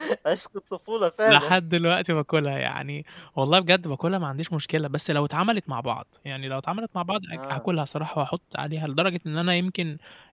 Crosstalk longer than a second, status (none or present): none